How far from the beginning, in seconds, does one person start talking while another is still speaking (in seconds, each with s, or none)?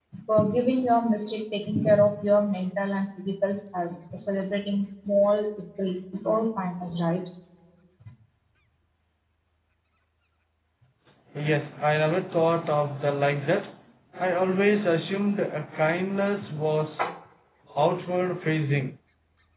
none